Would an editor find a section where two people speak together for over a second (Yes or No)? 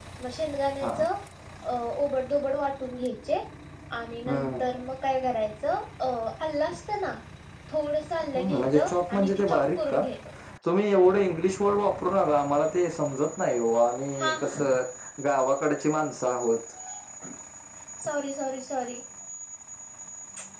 Yes